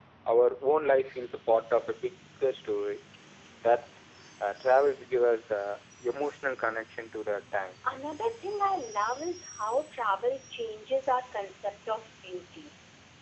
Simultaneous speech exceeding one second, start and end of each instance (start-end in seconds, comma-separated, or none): none